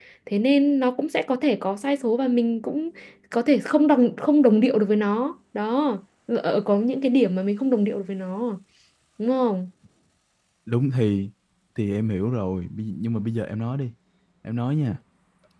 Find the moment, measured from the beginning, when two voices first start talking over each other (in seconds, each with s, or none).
none